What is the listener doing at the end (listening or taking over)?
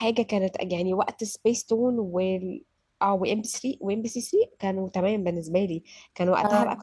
listening